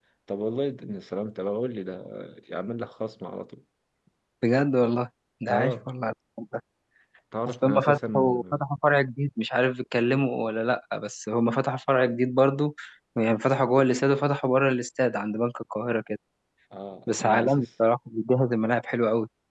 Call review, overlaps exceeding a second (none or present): present